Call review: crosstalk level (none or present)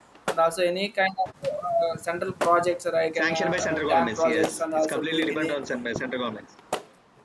present